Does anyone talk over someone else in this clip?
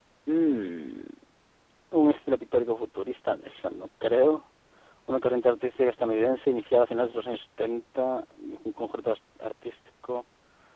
No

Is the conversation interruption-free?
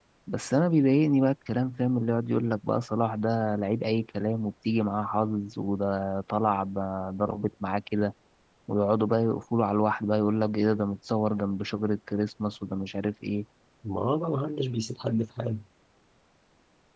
Yes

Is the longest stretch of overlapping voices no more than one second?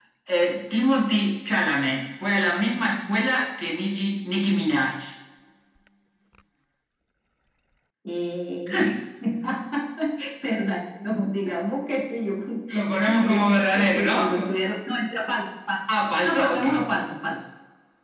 No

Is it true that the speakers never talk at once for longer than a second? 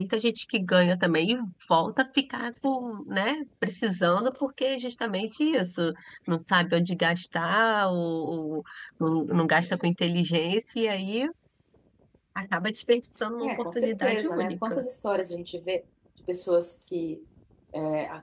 No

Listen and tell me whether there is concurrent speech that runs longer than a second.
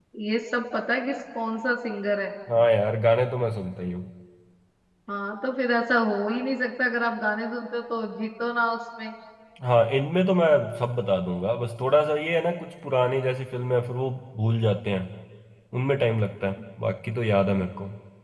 No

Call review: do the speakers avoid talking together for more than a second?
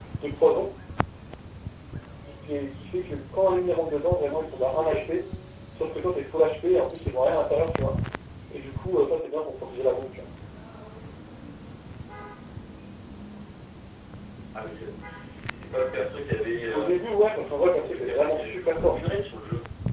No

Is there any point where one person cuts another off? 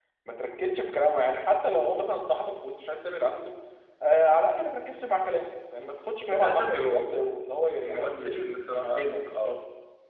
Yes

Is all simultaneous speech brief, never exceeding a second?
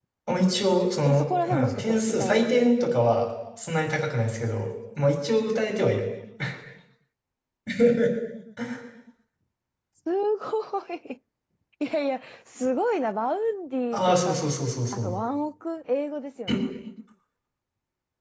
No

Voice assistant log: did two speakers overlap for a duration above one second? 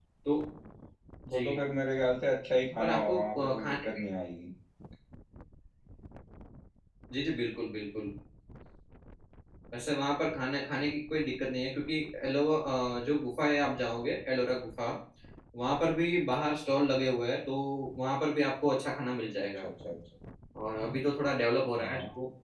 Yes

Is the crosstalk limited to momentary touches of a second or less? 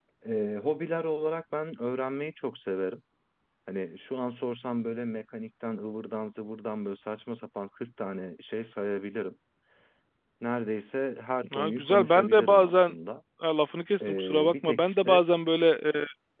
No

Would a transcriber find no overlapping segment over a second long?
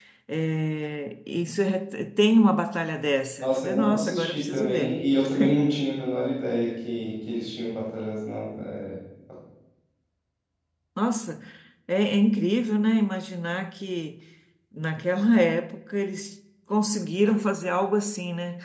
No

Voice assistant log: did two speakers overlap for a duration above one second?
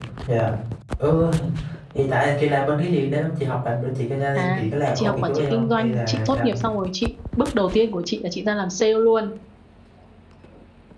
Yes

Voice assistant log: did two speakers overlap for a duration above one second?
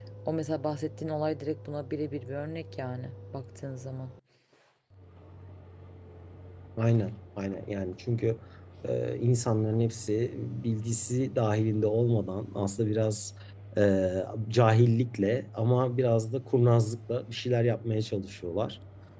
No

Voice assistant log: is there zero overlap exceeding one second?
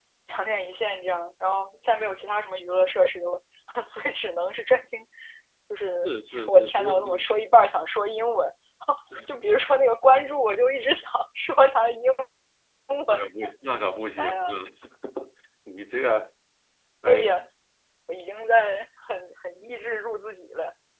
No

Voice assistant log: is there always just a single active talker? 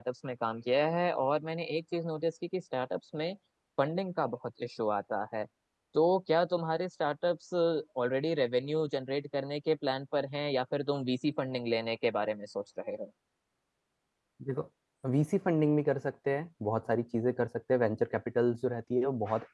Yes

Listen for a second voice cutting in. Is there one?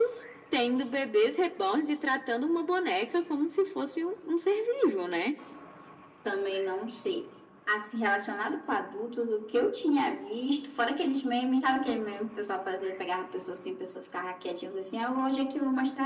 No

